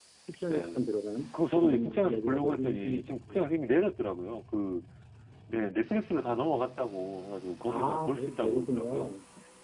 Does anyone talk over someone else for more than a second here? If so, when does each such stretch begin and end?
1.6-3.4, 7.7-9.1

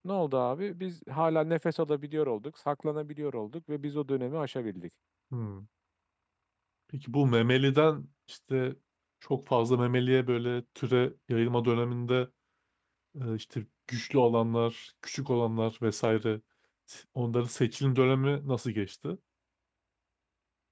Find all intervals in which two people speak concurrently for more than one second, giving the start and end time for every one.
none

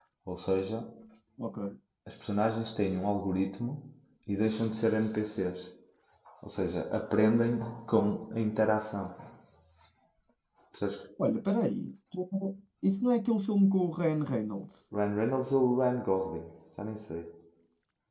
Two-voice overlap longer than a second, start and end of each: none

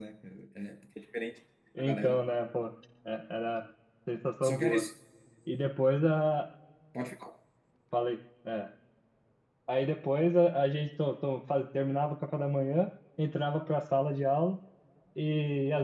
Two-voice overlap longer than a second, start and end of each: none

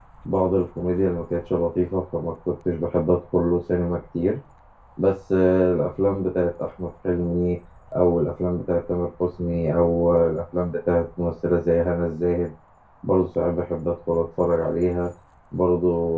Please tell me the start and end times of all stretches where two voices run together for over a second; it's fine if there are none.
none

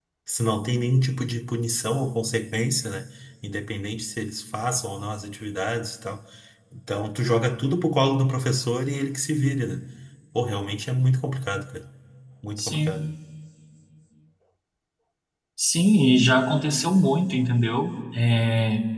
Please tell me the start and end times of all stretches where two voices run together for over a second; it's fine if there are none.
none

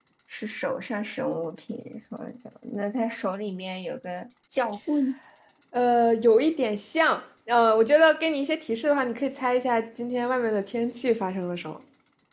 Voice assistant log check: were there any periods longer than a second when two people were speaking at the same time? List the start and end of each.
none

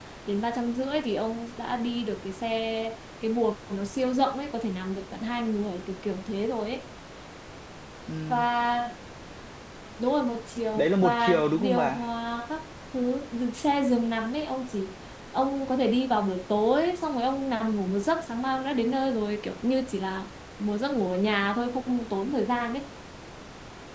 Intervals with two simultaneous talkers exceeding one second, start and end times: 10.8-12.0

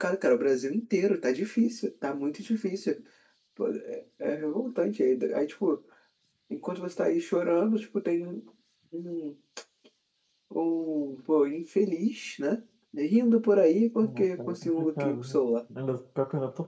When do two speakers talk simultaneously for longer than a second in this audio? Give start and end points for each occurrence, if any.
14.0-15.4

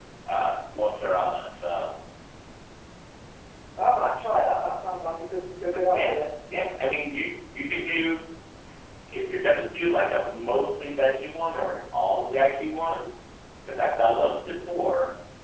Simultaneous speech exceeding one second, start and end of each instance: none

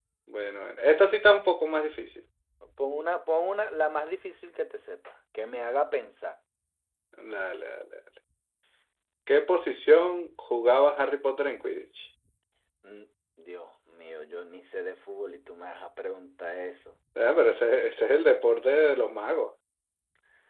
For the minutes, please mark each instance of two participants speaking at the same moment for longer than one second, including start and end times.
none

